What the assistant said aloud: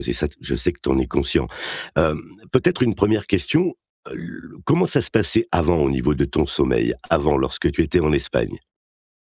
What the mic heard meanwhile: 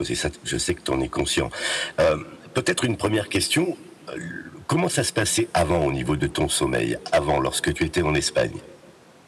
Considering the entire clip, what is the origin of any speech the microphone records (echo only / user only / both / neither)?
echo only